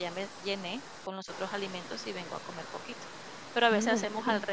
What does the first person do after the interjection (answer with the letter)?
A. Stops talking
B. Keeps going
B